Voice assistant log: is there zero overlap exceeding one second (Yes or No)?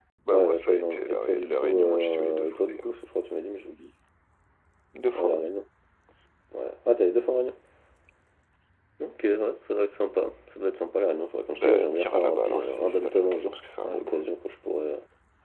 No